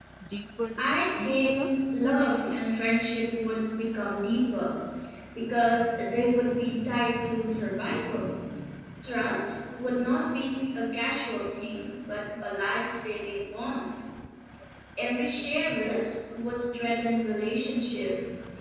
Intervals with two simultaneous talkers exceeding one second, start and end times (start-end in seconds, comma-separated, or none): 0.8-2.6